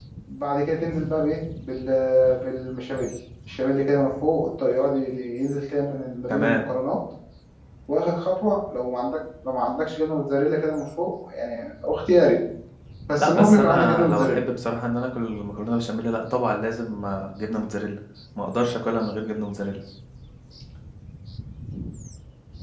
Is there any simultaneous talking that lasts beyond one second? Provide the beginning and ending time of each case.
13.2-14.4

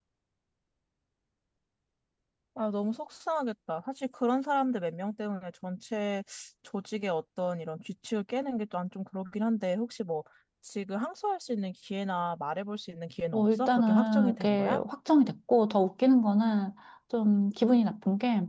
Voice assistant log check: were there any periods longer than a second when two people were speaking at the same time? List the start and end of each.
13.3-14.8

